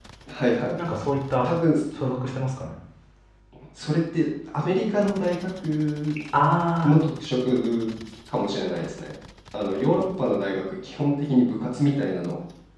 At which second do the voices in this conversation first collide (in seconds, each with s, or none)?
none